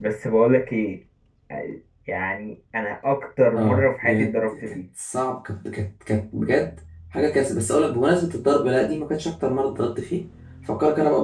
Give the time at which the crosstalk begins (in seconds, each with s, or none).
3.6 s